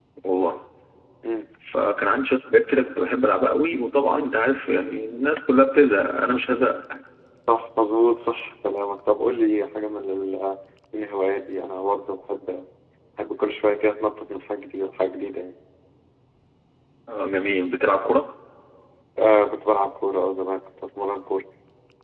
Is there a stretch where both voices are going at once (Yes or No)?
No